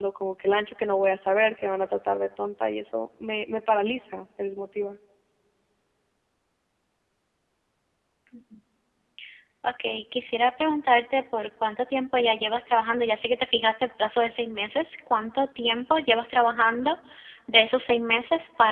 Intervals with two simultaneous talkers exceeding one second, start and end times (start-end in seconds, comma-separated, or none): none